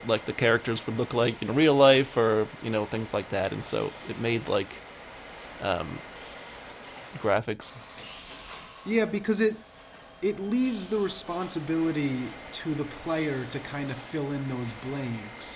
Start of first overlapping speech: none

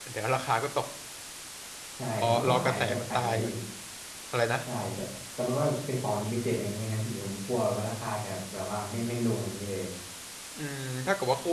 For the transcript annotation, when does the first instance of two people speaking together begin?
2 s

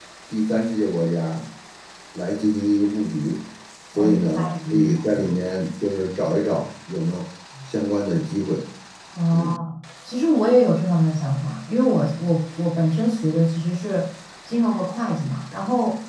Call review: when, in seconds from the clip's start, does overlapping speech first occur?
4 s

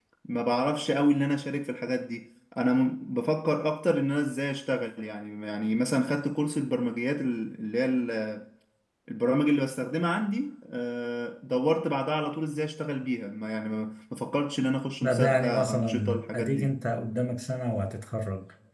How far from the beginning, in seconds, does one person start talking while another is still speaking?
15 s

